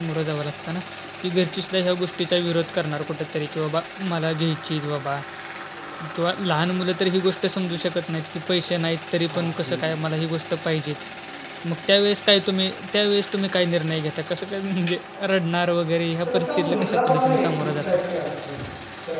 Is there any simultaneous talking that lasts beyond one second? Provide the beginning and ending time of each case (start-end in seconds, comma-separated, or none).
16.2-18.0